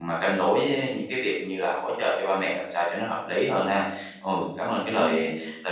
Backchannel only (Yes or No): Yes